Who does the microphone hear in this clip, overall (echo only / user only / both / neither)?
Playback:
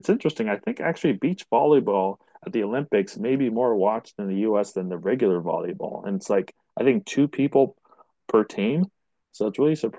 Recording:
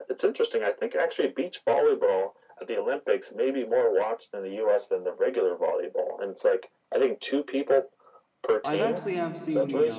both